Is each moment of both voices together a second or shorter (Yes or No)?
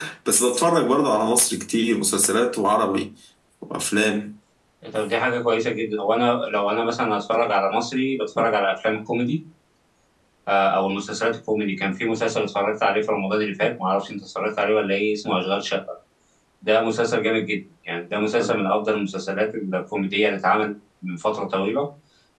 Yes